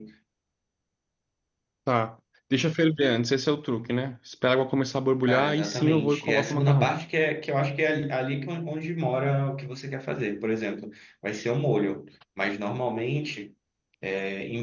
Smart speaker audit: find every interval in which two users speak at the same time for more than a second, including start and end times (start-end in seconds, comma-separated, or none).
5.2-7.0